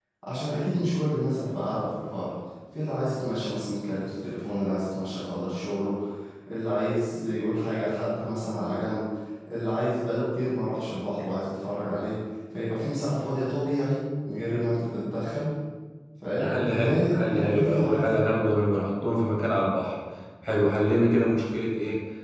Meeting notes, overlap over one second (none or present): present